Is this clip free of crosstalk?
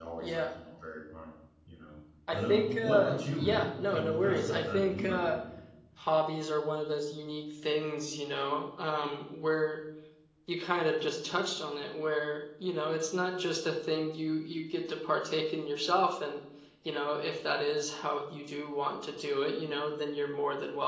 No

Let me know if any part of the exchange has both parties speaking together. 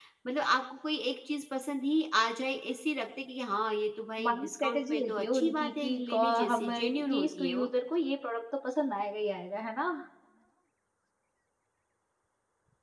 Yes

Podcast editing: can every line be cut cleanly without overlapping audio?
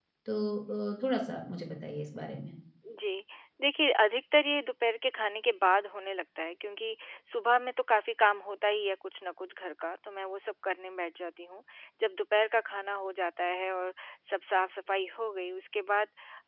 Yes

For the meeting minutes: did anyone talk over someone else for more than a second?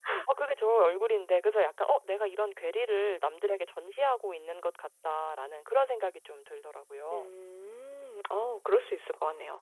No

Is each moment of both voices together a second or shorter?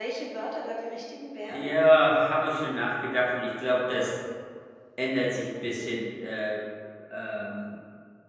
Yes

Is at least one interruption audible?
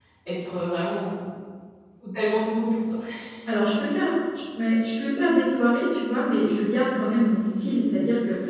No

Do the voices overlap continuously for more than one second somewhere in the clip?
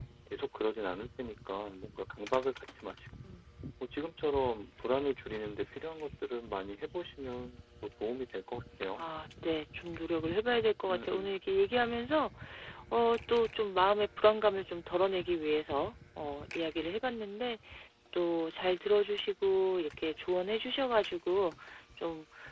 No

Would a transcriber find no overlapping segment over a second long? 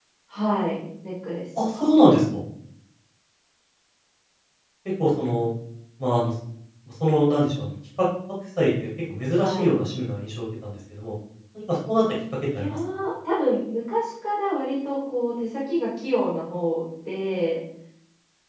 Yes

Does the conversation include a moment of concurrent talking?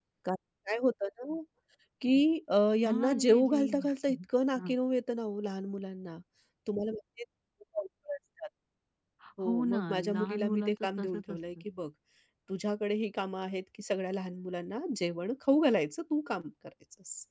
Yes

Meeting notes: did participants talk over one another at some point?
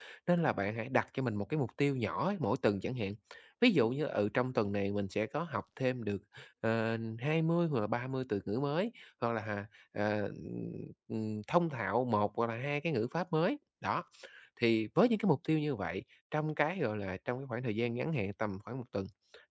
No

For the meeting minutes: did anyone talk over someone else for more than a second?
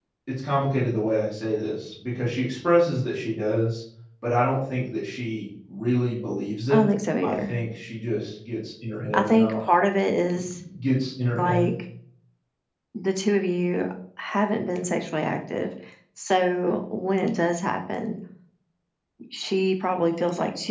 No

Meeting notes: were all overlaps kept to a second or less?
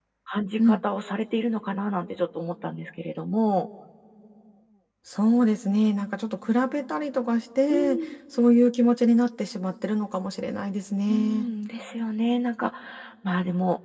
Yes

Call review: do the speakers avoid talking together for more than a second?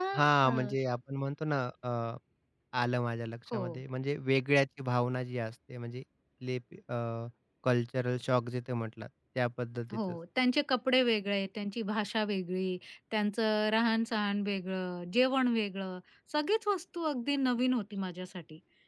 Yes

